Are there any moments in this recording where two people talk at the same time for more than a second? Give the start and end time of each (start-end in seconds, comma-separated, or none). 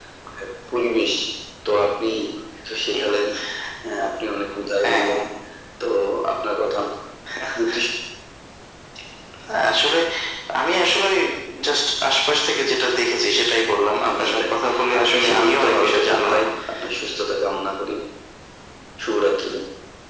15.0-16.4